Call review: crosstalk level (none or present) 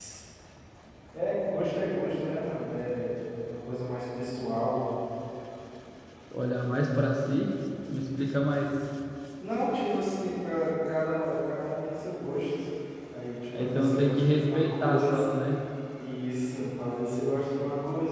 present